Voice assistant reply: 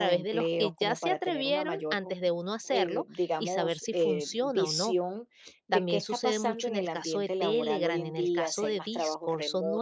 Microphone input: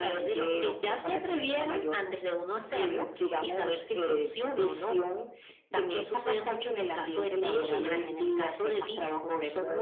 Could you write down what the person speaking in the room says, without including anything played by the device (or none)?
none